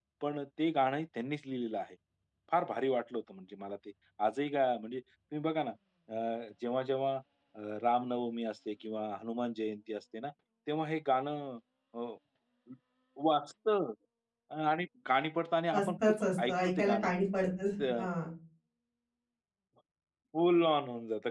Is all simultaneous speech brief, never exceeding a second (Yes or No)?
No